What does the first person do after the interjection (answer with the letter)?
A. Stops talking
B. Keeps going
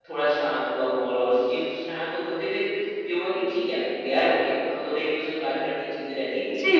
A